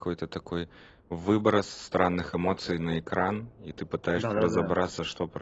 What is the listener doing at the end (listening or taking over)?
listening